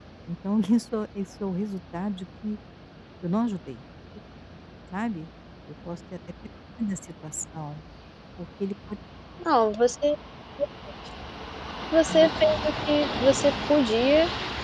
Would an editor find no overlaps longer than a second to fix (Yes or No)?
Yes